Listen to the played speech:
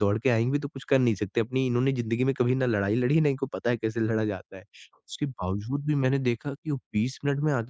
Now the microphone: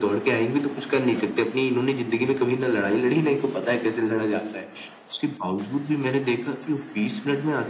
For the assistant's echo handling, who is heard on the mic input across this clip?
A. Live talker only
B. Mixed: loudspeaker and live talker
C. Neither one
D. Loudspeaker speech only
B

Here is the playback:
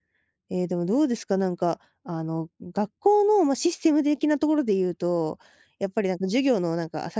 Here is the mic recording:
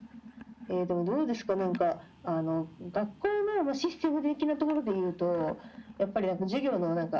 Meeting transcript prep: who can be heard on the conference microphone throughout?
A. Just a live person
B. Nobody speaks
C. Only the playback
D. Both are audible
C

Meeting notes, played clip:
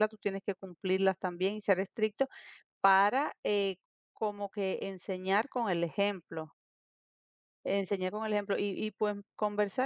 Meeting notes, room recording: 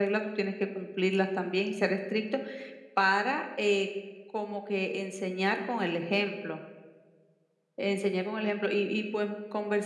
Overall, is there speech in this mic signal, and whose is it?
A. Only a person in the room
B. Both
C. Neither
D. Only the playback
D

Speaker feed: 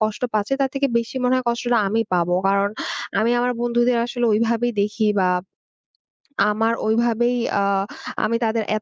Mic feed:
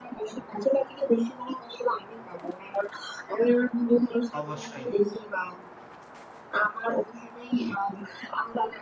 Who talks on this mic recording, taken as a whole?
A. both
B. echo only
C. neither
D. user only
A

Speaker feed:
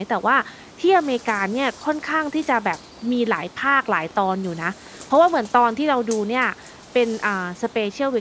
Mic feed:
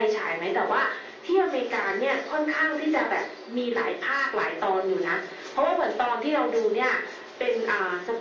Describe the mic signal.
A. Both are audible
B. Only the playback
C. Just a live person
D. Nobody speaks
B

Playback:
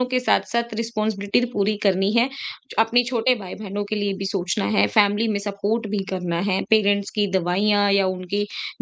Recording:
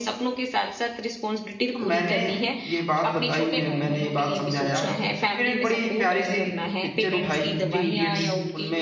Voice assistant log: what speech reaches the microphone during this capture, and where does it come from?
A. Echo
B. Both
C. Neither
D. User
B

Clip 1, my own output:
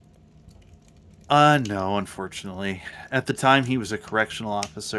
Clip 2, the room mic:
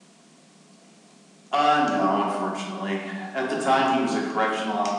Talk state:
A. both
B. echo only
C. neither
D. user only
B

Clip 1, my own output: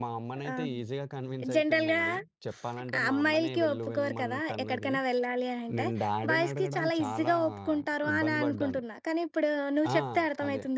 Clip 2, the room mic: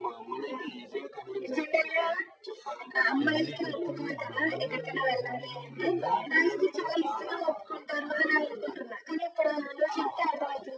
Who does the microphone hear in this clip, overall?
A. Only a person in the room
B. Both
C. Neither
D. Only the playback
B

